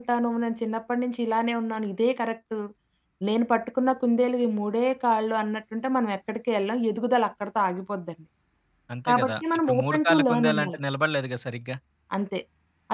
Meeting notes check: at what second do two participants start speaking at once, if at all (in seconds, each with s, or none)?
9.1 s